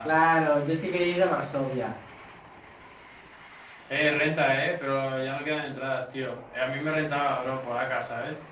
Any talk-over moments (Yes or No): No